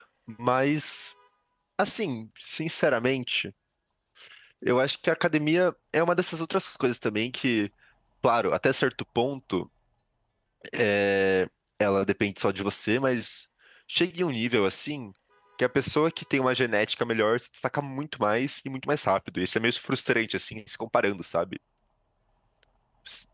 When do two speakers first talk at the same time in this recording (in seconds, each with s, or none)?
none